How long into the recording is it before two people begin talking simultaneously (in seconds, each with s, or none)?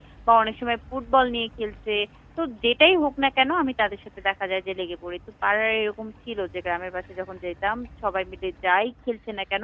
none